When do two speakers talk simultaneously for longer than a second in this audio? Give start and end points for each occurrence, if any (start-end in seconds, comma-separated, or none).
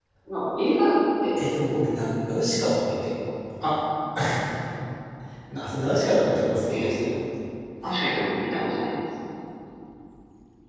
none